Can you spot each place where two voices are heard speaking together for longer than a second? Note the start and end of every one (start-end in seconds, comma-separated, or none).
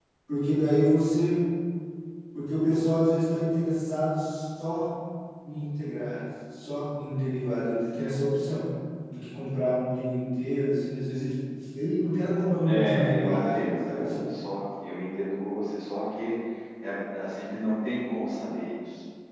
12.7-14.0